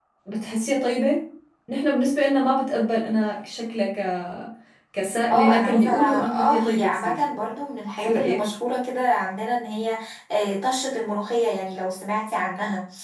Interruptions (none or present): present